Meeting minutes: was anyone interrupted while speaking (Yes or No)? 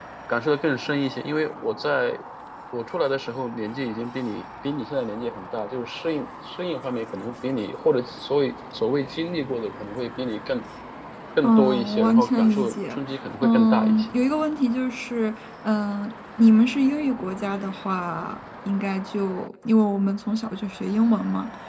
Yes